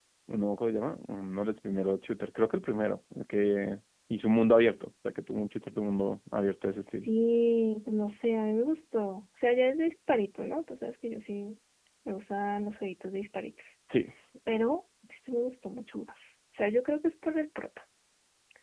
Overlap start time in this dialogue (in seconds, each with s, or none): none